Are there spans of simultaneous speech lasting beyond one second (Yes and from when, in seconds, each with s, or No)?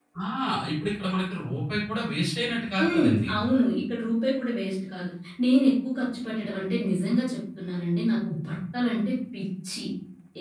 No